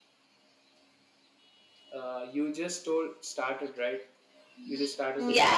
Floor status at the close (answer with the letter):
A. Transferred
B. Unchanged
A